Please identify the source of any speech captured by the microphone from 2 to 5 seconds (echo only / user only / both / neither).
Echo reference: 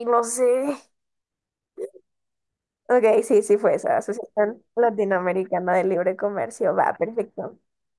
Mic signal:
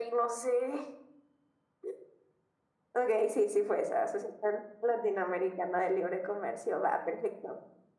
echo only